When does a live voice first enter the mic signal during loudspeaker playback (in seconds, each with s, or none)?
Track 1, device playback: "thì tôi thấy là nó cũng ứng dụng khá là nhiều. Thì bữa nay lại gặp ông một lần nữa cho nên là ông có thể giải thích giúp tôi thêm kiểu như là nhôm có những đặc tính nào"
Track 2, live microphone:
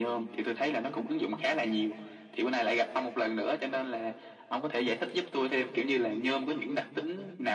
none